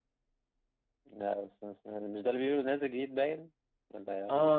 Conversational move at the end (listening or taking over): taking over